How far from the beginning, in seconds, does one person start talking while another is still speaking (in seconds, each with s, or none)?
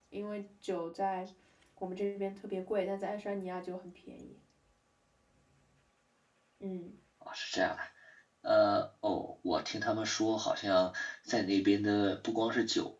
none